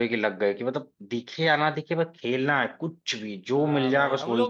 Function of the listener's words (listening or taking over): taking over